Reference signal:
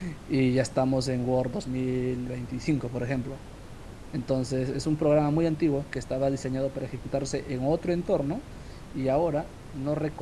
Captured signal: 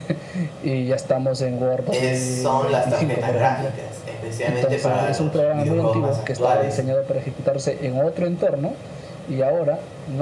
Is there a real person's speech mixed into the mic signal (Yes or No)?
Yes